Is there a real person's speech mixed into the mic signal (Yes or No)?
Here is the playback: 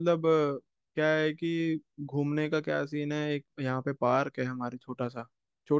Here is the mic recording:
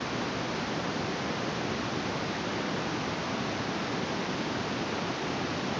No